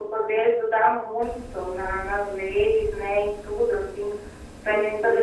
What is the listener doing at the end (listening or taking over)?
listening